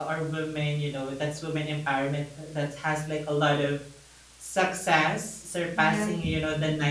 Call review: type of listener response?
listening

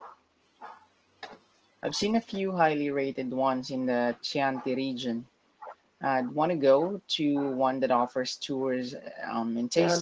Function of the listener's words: taking over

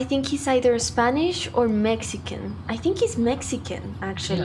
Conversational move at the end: taking over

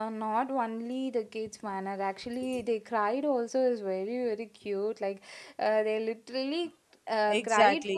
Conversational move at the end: taking over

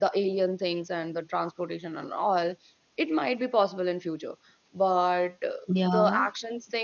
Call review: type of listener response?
listening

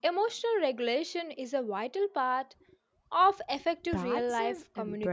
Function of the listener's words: taking over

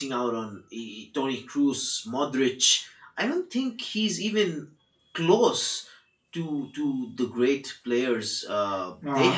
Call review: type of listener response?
taking over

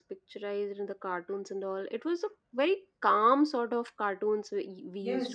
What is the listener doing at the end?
taking over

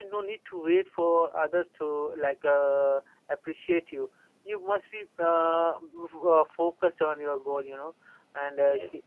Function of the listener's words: listening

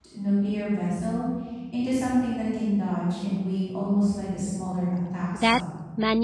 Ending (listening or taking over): taking over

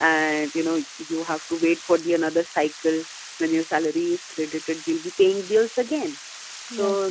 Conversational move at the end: listening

